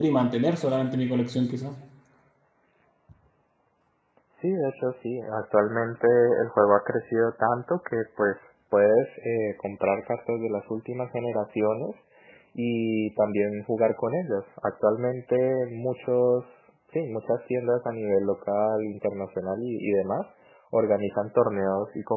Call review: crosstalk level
none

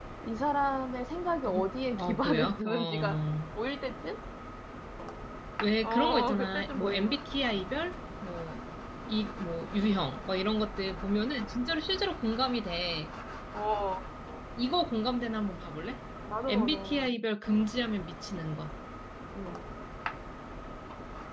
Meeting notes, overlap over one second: present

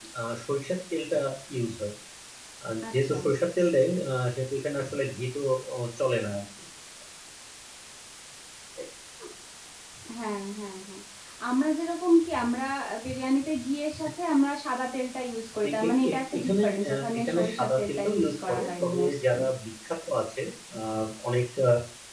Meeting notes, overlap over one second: present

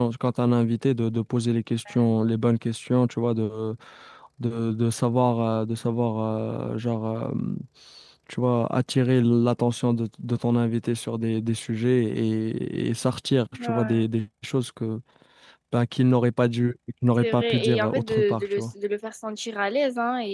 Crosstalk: present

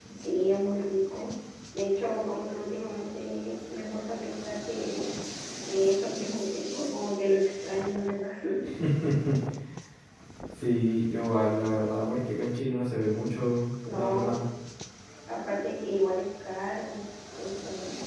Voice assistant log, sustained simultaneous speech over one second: none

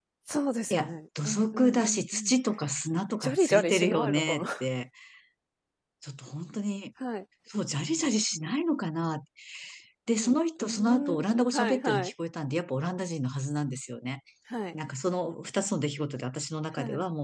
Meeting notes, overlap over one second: present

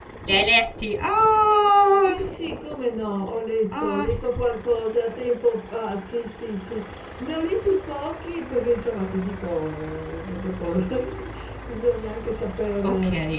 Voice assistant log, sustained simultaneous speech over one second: none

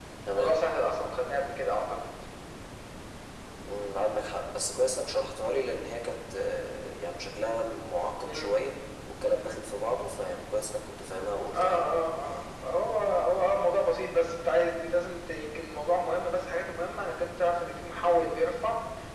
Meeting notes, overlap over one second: none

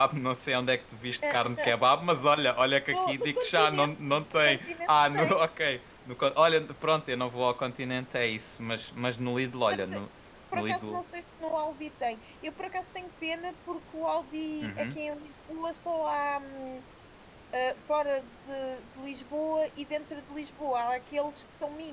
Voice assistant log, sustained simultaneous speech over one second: present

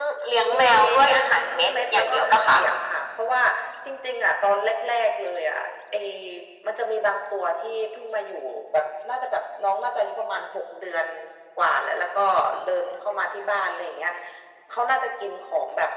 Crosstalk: present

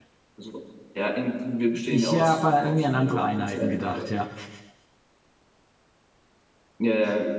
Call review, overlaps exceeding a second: present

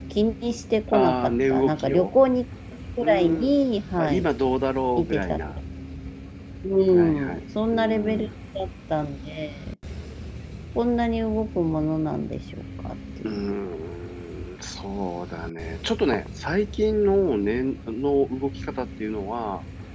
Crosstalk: present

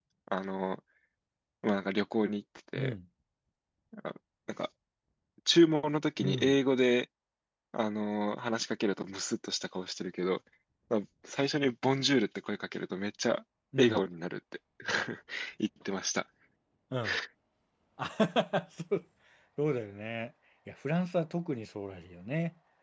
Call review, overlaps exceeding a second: none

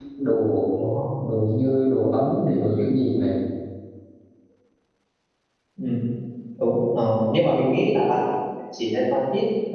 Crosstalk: none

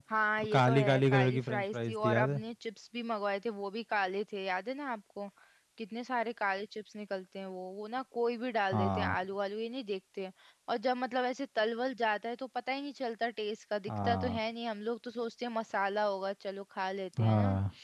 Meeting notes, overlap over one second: present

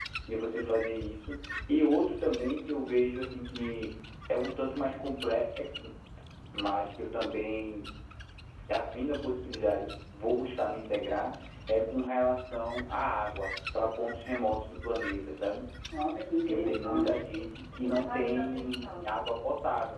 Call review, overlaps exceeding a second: present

